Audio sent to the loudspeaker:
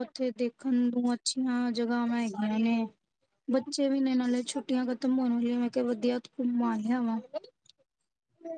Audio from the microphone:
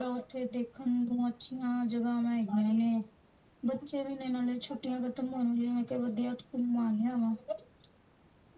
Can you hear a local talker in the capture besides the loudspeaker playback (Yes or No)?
No